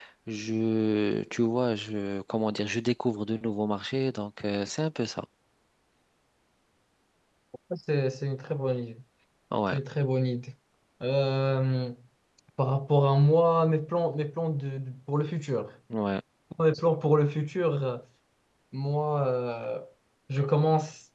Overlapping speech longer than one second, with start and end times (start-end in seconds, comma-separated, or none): none